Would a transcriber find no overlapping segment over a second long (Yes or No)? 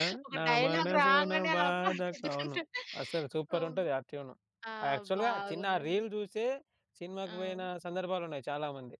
No